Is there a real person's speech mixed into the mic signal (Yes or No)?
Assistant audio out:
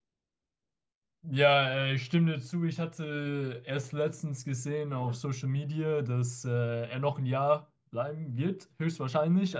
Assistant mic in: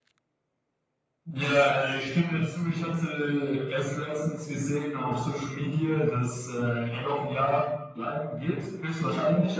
No